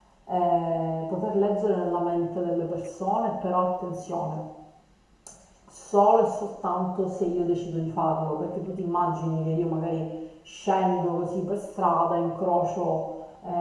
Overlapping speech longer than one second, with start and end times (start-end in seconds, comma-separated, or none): none